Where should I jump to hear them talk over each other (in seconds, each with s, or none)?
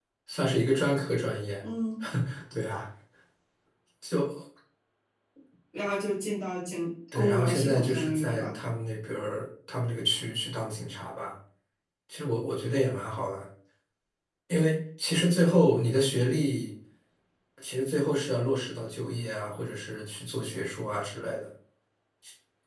7.1 s